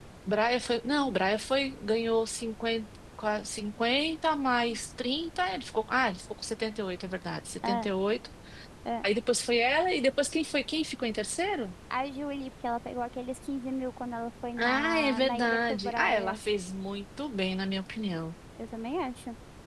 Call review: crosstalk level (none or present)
present